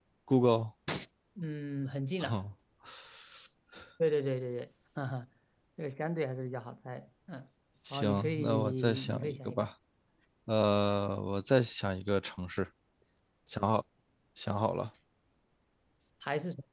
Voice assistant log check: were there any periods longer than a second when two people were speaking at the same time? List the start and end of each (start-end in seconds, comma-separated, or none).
7.9-9.7